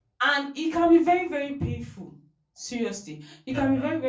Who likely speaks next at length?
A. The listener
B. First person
B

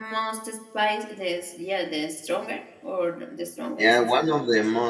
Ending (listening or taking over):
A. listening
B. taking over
B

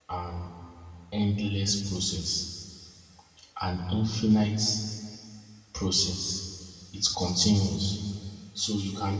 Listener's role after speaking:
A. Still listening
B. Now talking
A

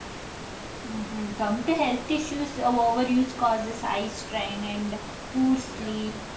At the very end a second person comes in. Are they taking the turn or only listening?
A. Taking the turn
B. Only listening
B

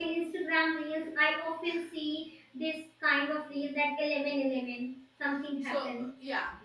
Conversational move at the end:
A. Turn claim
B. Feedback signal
A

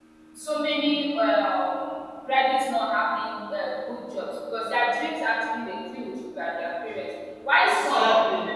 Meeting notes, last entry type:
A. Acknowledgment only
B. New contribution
A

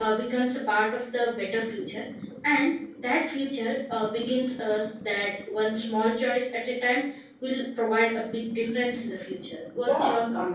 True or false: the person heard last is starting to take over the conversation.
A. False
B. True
B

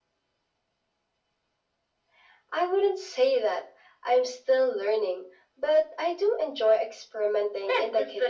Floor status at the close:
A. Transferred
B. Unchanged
A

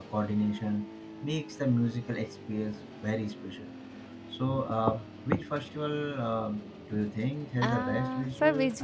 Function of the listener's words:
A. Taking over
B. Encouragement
A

